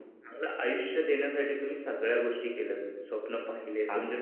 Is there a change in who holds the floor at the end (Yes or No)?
No